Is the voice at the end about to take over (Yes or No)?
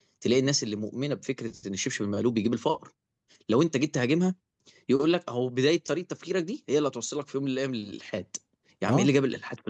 No